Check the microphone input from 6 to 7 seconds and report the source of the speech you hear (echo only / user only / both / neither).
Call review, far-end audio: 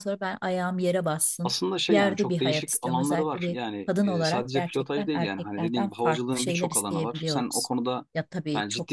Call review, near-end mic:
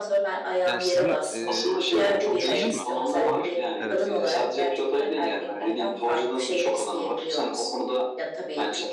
echo only